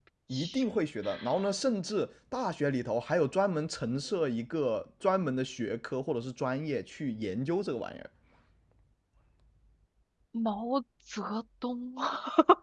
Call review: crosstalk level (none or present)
none